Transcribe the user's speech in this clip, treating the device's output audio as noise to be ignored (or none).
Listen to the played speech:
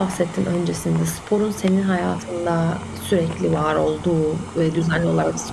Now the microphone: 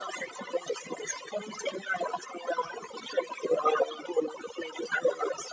none